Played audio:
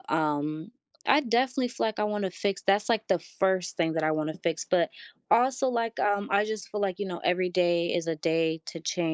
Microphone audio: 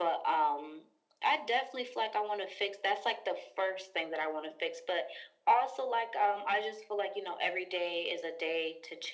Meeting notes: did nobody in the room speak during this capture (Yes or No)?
Yes